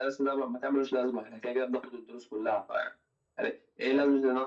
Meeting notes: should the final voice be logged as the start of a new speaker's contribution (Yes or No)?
No